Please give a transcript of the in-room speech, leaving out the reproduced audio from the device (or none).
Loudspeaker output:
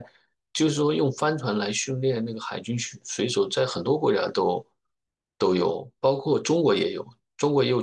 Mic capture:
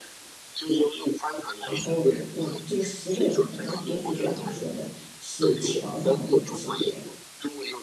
然后我这个十个人可能也许就像你说的，是桥上的或者什么的，